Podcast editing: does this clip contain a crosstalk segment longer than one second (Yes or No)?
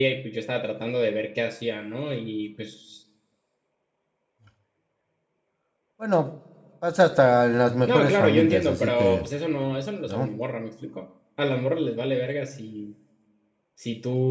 Yes